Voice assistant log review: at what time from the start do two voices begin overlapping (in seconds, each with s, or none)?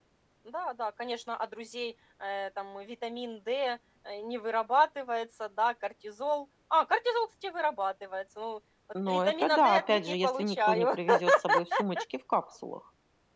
8.9 s